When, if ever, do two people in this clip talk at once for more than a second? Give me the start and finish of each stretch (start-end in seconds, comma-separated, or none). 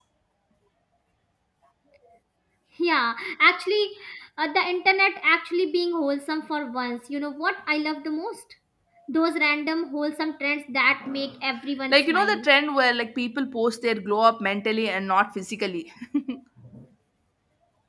none